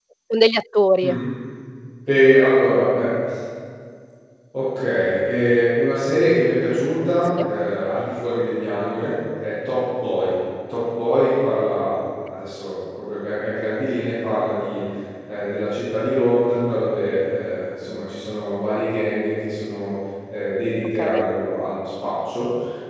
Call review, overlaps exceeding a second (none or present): none